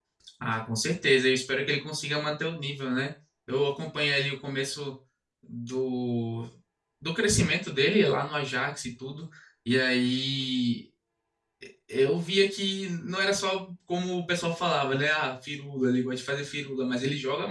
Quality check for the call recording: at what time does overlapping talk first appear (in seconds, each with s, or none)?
none